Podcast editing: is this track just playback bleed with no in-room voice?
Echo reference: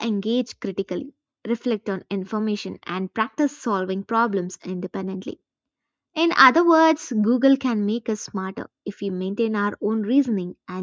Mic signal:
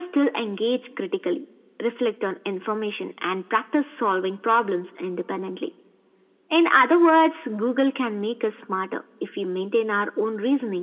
Yes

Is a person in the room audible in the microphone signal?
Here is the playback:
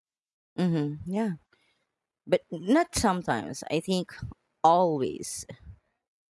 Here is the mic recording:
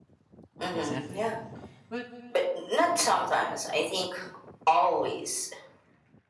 Yes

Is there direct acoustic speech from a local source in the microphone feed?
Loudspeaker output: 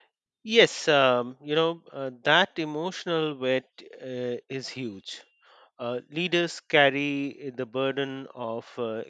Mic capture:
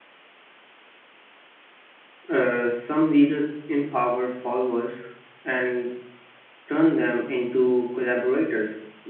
Yes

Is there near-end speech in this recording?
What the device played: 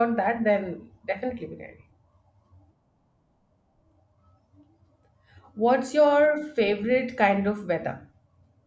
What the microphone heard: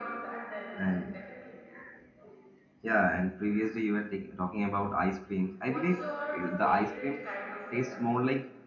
Yes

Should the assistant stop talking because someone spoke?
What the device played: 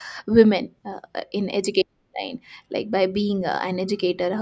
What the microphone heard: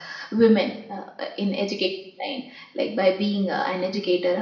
No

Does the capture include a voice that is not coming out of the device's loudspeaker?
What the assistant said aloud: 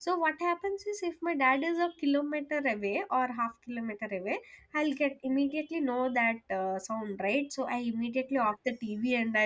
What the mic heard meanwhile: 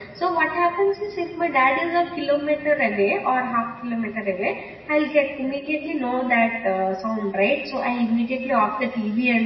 No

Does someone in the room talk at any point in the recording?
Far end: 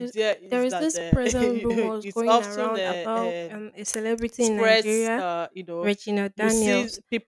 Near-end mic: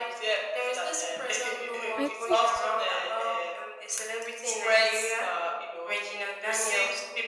Yes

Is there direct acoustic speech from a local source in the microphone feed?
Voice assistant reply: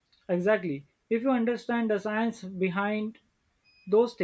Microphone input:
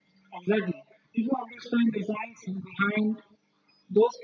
No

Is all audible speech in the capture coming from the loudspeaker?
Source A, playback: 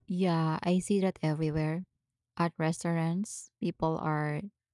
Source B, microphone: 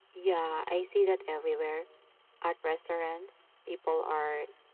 Yes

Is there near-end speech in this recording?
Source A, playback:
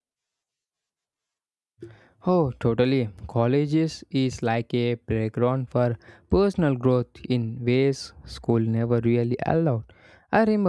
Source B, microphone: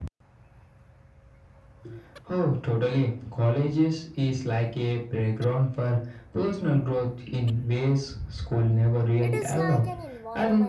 Yes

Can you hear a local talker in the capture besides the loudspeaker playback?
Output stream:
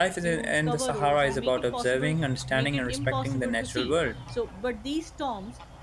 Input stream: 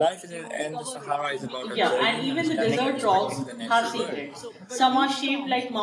Yes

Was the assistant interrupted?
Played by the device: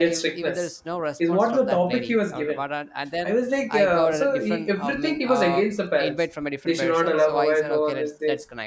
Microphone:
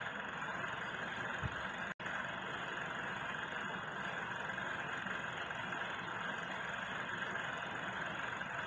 No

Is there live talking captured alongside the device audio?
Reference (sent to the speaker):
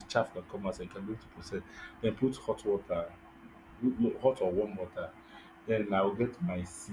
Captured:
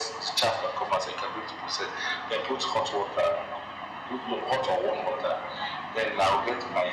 No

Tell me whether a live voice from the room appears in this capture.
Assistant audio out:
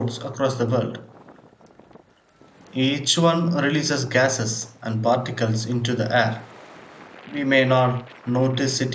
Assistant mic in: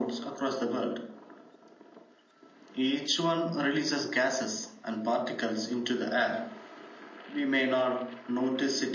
No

